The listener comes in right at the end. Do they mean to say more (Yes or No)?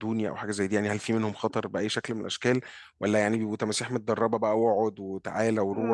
Yes